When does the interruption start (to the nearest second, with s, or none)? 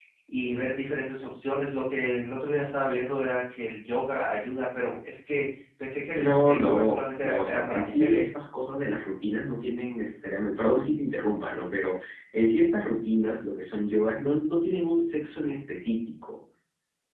6 s